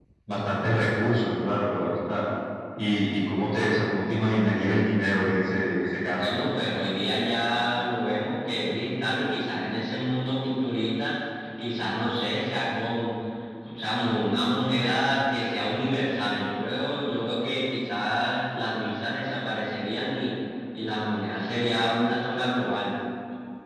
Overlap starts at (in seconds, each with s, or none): none